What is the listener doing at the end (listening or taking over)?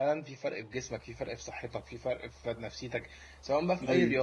listening